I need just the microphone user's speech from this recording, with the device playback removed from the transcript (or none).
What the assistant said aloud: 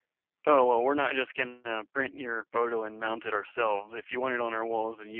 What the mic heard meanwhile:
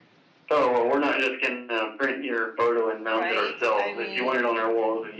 Right? I mean,